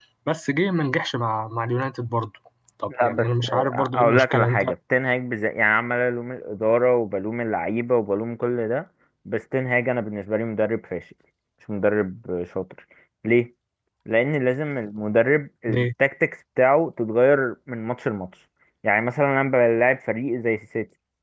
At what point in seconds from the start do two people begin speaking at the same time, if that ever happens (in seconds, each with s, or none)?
2.9 s